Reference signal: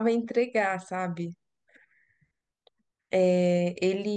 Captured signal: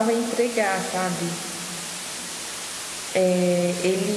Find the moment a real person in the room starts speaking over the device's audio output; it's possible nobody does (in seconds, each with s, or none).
none